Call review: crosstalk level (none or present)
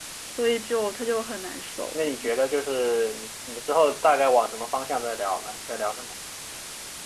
none